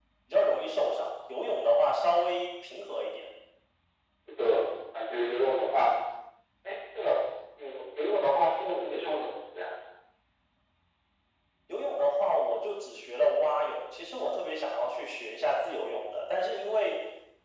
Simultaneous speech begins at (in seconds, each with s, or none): none